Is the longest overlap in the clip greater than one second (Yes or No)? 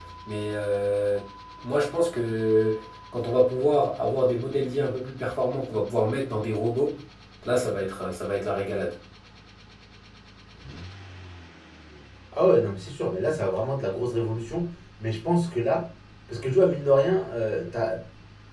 No